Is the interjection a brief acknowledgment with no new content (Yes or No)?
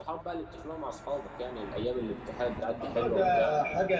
No